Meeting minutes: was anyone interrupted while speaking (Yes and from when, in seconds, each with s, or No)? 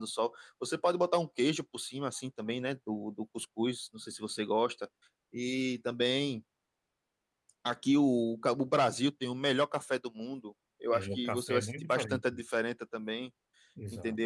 Yes, from 10.9 s